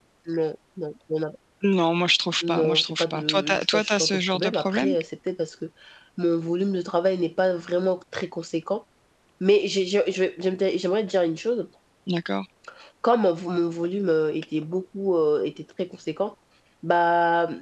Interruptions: present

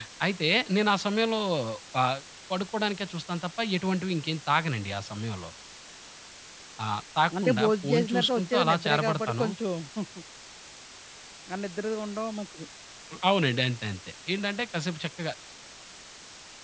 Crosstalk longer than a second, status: present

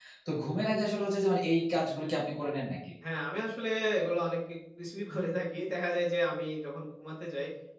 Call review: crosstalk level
none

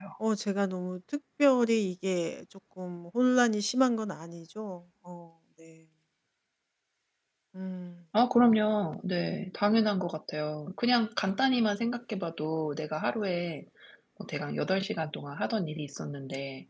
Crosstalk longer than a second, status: none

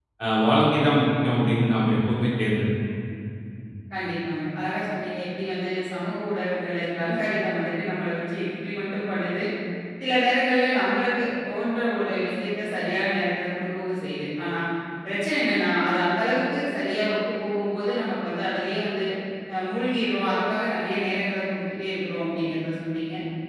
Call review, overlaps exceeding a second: none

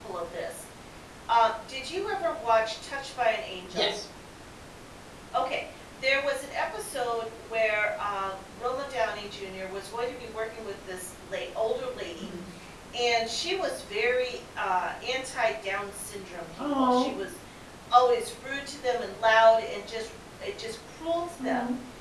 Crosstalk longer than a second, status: none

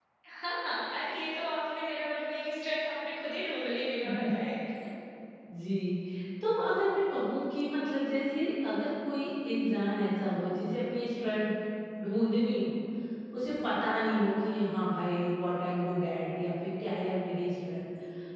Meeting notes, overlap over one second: none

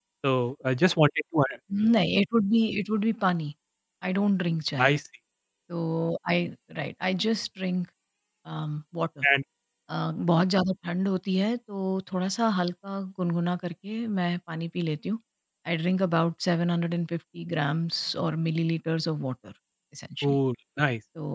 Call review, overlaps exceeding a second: none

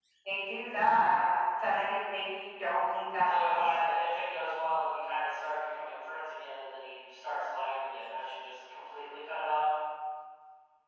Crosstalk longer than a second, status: none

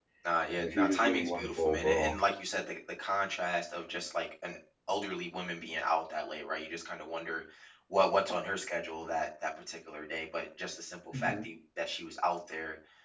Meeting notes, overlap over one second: present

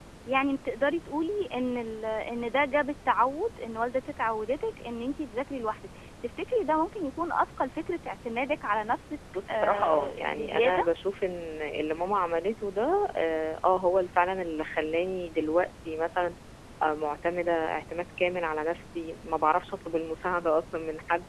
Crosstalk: present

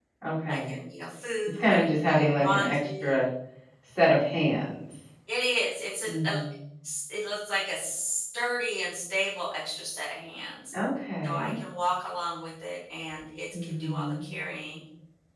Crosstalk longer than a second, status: present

